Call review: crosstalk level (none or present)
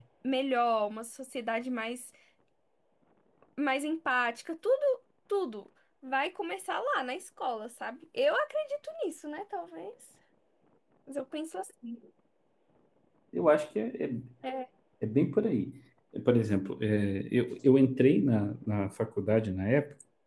none